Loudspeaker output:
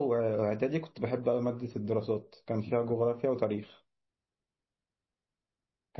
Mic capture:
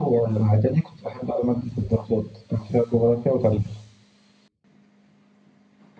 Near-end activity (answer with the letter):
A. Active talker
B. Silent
B